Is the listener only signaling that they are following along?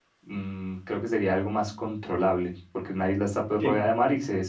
Yes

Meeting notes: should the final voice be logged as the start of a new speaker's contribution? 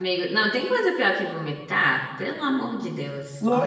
Yes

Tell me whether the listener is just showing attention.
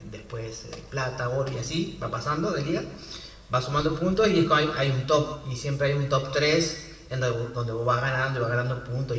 Yes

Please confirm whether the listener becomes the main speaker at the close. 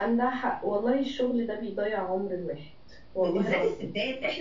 Yes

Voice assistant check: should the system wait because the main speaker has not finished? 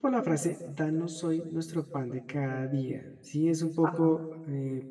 Yes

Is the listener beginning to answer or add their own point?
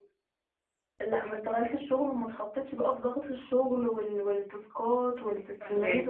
No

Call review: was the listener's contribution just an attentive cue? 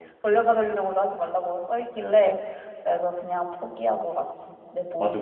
No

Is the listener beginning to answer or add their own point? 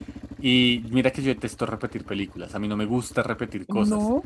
No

